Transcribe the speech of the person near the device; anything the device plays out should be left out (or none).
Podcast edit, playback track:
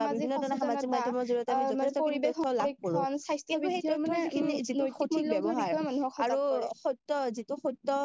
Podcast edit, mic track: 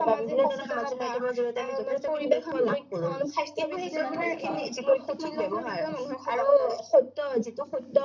কিছুমান তথ্য